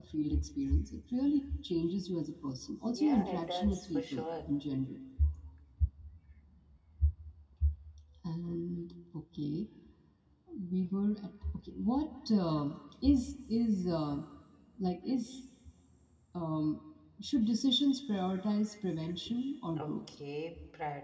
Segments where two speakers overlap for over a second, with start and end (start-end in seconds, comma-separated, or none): 2.9-4.4